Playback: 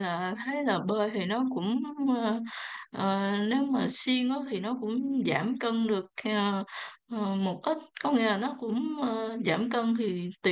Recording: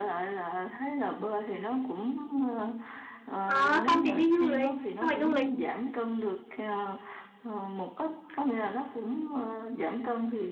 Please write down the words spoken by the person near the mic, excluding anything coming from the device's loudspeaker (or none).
Ờ, không thì đi du lịch nhưng mà du lịch